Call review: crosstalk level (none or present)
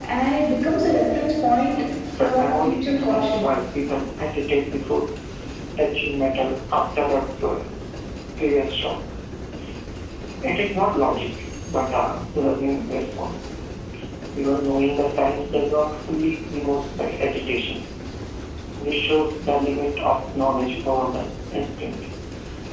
present